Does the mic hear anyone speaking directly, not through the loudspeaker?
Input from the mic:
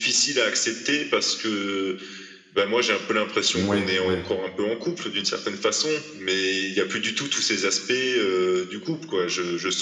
Yes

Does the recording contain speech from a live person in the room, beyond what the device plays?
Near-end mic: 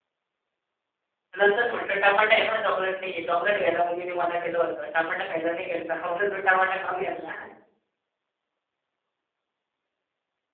Yes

